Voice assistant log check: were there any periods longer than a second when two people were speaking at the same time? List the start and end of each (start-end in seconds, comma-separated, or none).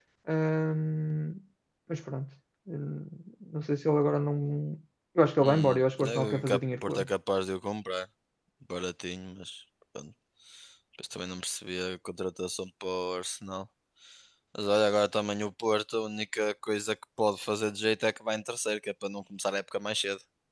5.4-7.1